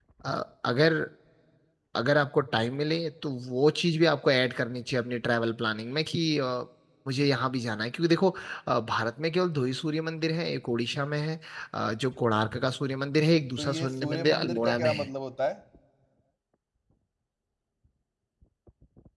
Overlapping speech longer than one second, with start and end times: 13.6-15.1

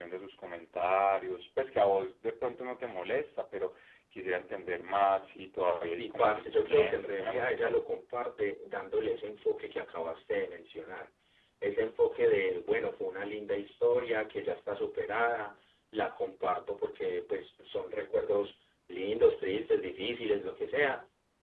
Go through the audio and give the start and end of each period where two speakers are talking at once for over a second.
6.0-7.8

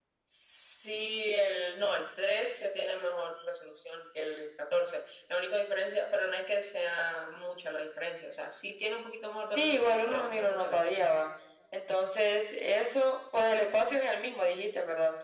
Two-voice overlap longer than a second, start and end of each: 9.5-11.1

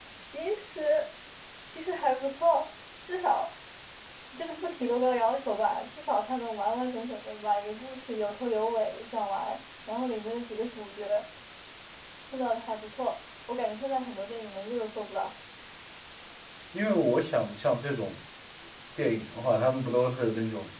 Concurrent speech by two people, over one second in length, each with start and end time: none

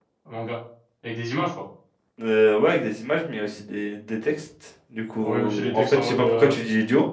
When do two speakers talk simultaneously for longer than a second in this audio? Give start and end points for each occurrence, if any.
5.2-6.5

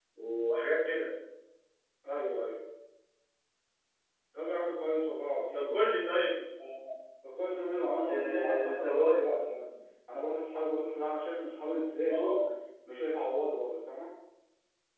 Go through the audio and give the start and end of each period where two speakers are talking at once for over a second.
8.1-9.5

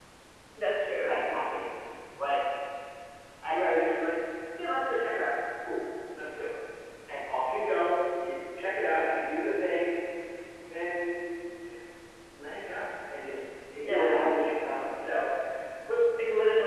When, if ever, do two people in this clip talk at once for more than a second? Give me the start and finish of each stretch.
none

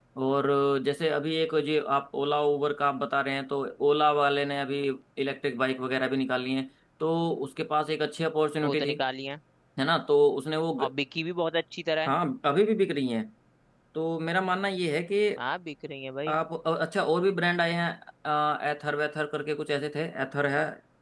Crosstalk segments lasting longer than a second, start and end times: none

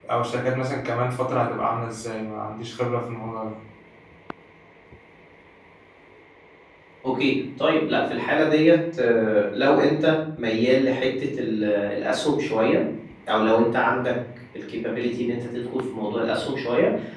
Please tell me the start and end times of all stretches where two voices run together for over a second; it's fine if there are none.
none

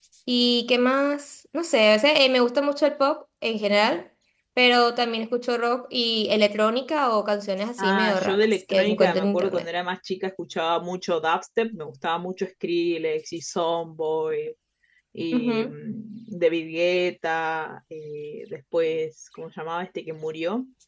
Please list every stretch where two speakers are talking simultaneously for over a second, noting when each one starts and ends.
7.8-9.6

